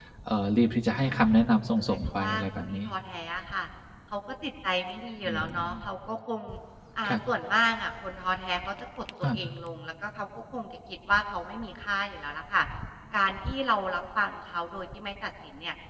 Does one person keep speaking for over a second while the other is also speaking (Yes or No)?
Yes